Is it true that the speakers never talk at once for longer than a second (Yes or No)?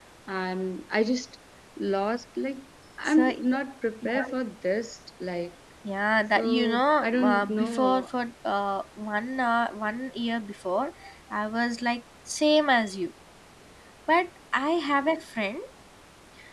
No